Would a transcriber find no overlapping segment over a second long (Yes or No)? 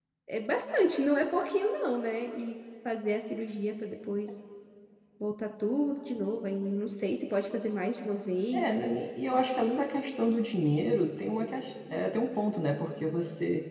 Yes